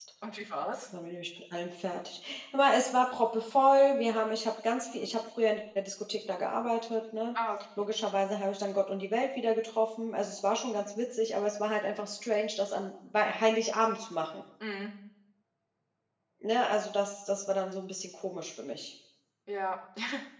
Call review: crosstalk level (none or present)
none